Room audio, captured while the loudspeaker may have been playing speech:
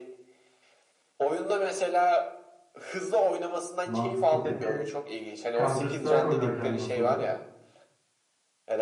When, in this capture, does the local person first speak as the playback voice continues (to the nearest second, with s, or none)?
4 s